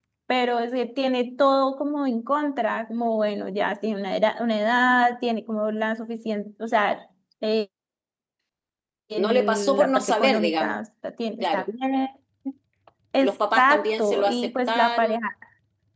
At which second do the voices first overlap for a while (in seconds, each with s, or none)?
9.2 s